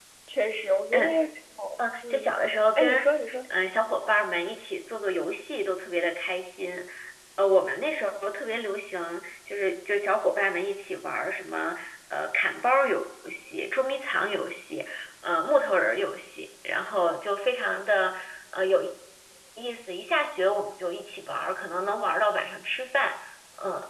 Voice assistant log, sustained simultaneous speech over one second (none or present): none